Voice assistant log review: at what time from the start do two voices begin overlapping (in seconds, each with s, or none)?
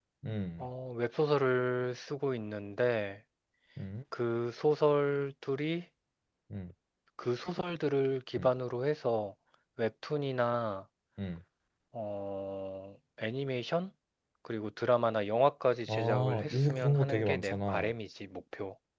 15.9 s